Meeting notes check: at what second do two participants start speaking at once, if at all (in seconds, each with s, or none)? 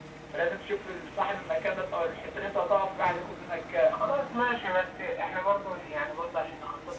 none